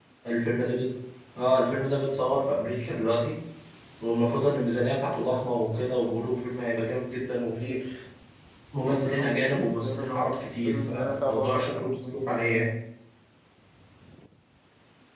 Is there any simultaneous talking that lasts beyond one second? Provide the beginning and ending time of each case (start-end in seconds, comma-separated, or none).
10.6-12.7